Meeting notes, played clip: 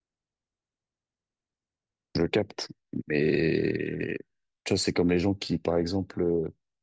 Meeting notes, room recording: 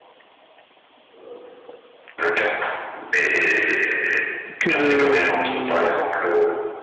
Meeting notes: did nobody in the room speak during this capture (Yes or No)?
No